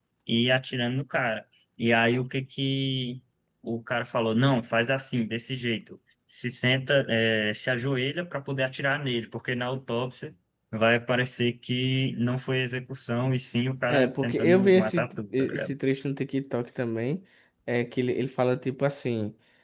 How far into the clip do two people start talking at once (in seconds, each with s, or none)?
13.9 s